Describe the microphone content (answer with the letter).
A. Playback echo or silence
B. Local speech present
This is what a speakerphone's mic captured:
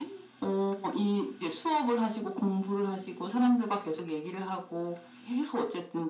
A